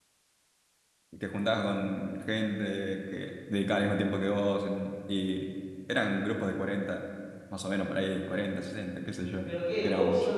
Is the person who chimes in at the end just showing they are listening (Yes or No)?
No